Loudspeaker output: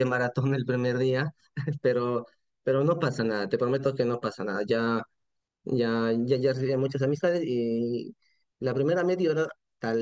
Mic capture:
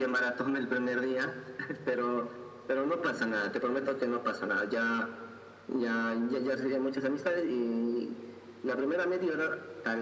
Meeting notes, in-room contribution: none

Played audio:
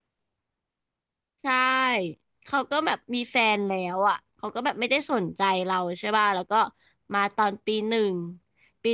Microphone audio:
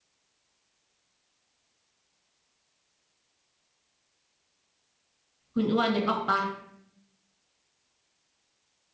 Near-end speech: present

